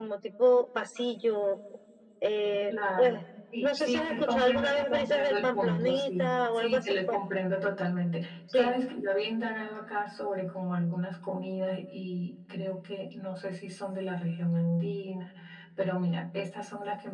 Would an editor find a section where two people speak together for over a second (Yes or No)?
Yes